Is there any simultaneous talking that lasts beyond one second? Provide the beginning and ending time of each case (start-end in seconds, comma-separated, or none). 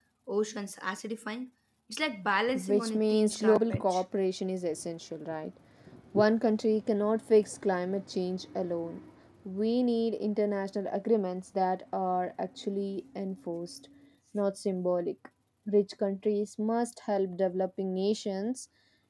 2.5-4.0